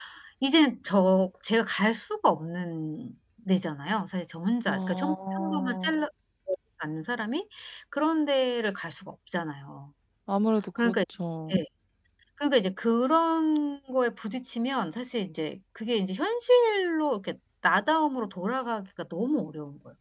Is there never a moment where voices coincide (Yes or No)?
No